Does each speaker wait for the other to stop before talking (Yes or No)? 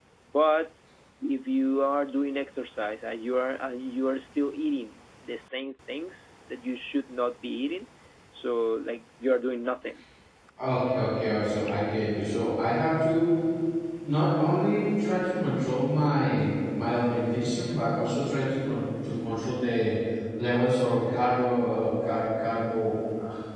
Yes